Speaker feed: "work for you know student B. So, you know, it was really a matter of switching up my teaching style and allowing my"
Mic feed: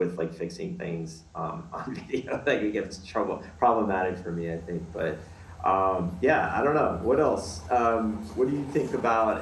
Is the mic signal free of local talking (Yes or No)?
No